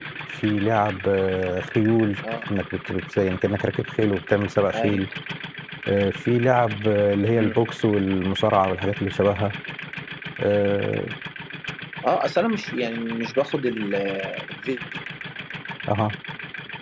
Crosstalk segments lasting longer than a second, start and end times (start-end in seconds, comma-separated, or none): none